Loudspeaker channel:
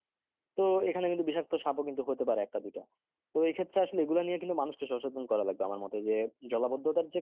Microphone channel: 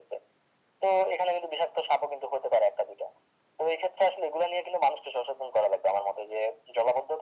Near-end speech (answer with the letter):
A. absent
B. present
A